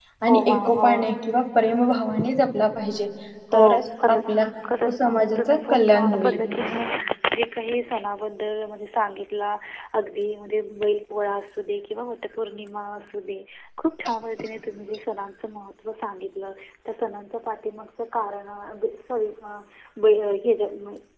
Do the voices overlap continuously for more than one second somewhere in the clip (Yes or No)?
Yes